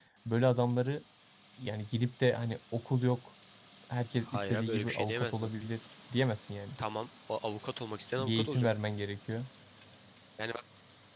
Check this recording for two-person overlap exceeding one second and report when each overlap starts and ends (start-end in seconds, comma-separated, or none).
4.2-5.5